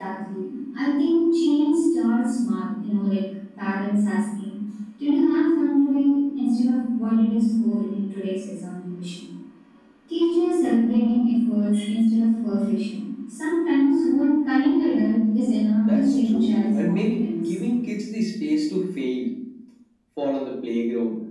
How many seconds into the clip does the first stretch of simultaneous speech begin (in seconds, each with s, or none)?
15.9 s